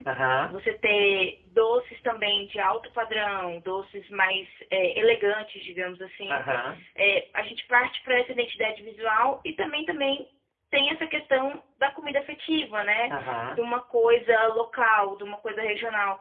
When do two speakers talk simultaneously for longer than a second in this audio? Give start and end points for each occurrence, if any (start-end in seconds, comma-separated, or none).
none